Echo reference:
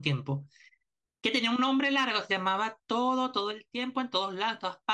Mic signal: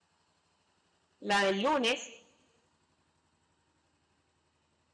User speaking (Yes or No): Yes